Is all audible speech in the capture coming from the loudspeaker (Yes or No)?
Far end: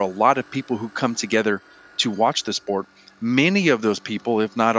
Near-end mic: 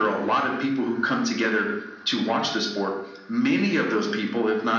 Yes